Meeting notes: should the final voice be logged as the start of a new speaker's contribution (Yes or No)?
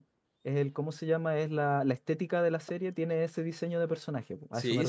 Yes